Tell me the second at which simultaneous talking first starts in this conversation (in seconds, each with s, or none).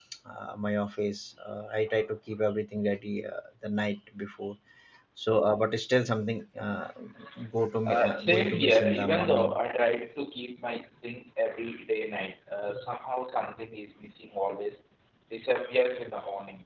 7.8 s